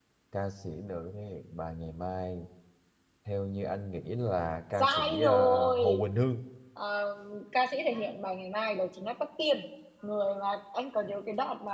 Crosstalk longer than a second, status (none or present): present